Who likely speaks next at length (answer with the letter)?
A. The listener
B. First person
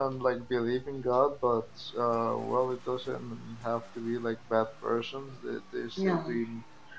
B